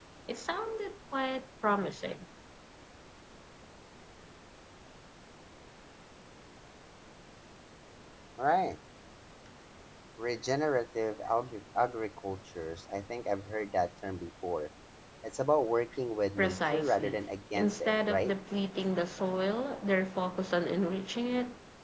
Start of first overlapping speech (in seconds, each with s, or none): 16.4 s